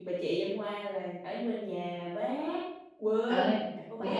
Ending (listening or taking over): taking over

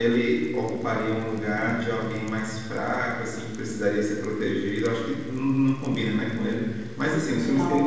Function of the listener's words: listening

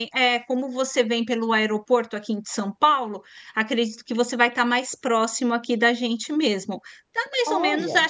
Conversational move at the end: listening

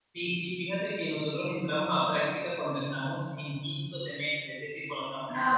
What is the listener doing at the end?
taking over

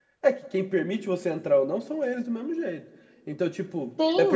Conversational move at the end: taking over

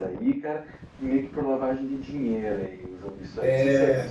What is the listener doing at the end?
taking over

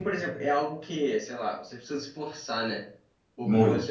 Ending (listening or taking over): listening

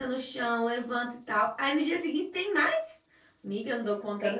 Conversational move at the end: taking over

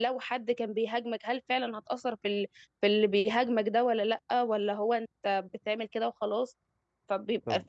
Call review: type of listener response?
listening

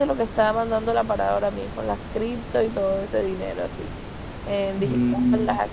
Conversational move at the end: listening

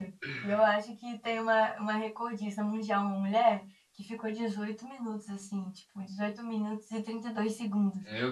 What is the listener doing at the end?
listening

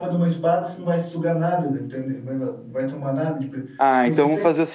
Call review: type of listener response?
taking over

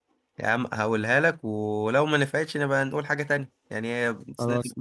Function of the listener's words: listening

